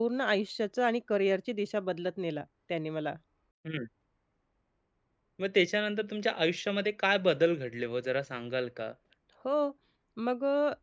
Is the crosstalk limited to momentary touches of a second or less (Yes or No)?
Yes